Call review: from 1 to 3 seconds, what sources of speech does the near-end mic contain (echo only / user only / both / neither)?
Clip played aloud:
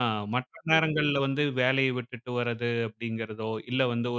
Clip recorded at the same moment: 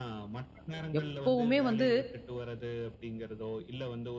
both